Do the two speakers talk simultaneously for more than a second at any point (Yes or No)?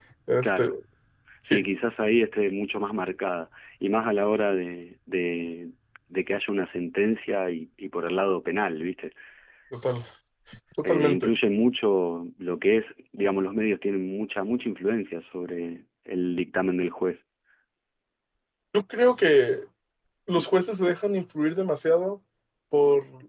No